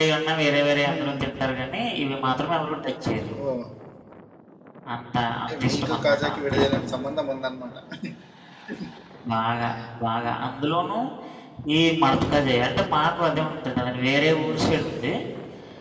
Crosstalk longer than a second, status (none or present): present